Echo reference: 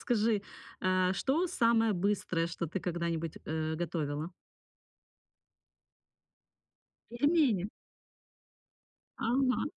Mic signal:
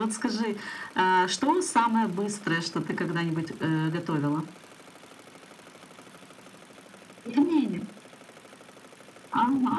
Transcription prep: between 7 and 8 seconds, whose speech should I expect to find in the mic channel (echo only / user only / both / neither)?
echo only